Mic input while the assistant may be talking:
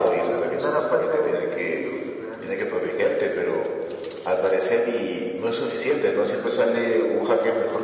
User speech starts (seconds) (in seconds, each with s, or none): none